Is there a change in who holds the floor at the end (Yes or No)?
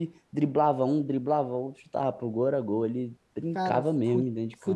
Yes